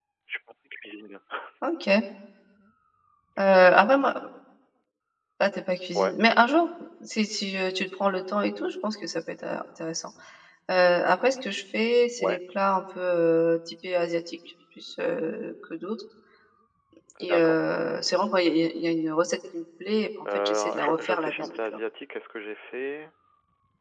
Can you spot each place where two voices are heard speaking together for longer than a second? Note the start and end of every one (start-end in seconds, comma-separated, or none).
20.4-21.8